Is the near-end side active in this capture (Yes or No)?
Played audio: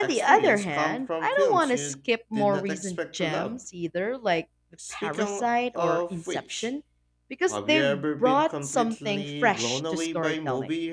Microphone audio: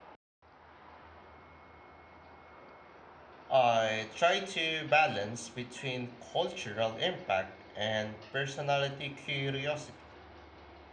Yes